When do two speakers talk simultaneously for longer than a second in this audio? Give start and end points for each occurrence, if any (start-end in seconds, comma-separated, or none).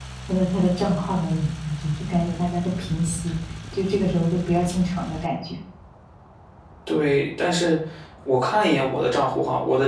none